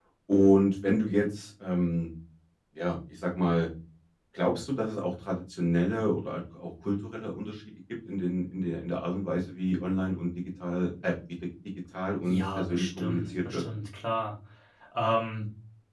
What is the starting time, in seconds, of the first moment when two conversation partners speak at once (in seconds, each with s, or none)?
12.3 s